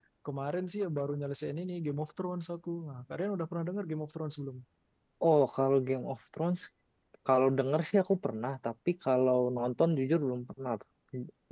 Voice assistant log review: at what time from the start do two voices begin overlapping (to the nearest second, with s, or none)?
none